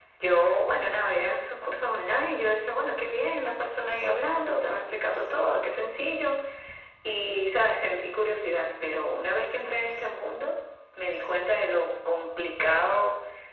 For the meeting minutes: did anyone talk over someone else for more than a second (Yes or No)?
No